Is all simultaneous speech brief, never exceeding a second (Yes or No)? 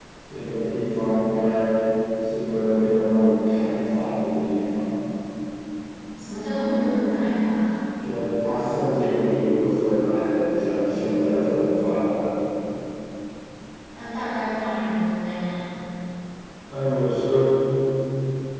Yes